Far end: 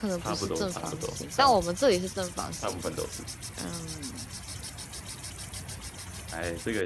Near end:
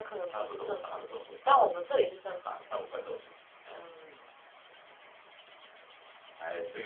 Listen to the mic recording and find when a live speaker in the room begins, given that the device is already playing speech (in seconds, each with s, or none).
none